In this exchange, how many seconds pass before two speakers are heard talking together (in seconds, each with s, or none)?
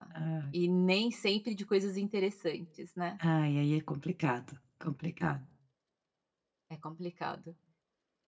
none